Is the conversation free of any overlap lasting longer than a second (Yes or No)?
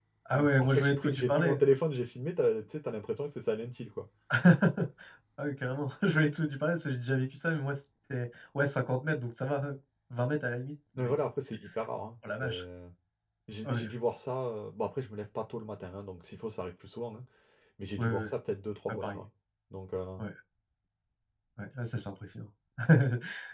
No